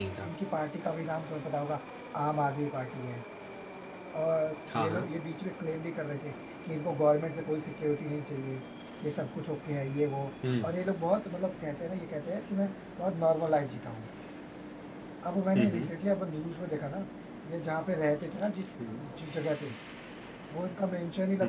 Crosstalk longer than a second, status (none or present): none